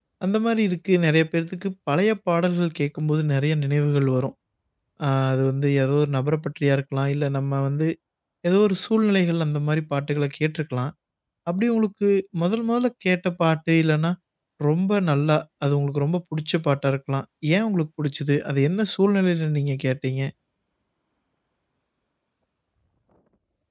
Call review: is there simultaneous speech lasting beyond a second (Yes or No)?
No